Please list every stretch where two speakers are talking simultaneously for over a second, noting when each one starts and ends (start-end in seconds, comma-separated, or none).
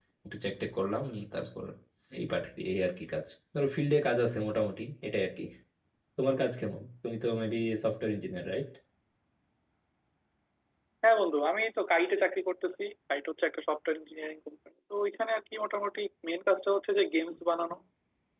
none